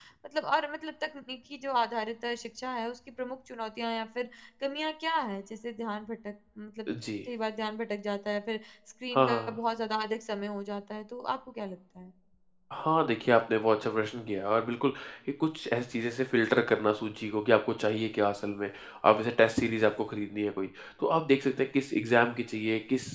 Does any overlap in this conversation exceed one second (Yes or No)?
No